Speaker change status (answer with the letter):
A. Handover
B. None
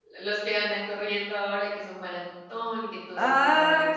A